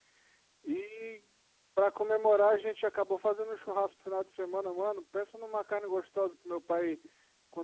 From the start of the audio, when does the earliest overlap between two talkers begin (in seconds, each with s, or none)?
none